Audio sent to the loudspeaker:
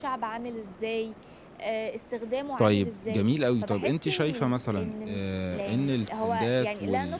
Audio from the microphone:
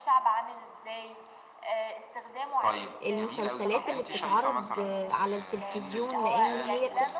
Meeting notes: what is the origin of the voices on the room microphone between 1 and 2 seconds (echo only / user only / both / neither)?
echo only